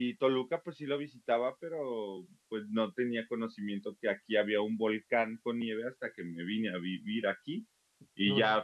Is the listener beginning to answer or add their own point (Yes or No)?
No